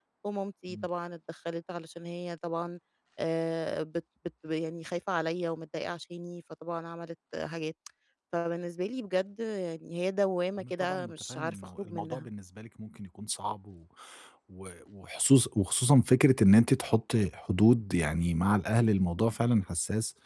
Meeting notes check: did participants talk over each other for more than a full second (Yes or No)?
Yes